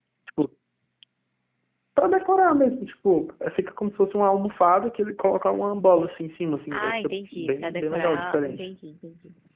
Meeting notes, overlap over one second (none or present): present